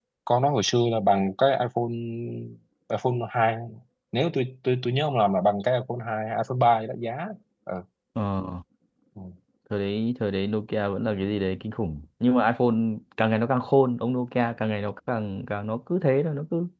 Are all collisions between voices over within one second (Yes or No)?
Yes